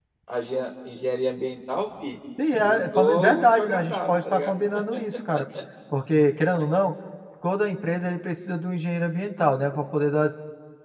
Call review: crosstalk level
present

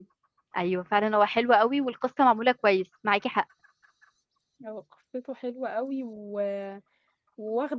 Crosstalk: none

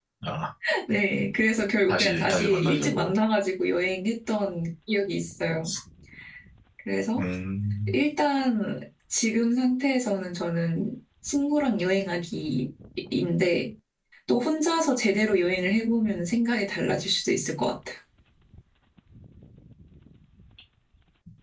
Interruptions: present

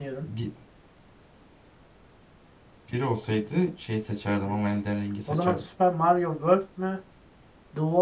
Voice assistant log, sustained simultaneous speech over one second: none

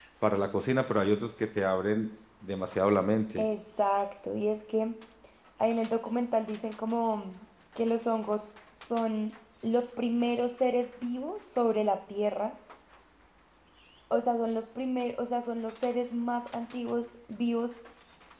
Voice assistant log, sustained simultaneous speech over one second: none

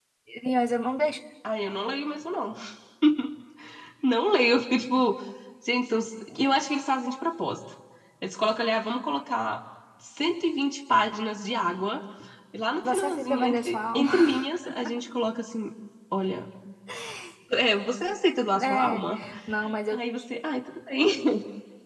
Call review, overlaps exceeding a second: present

